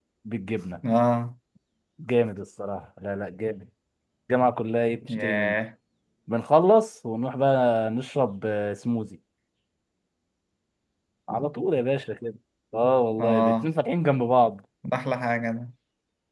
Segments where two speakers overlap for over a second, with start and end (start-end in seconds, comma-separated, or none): none